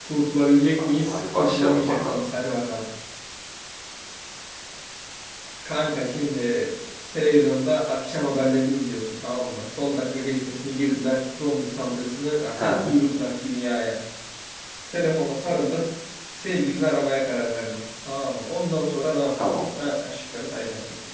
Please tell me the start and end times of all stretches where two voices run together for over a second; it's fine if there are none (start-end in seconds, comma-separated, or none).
0.8-2.2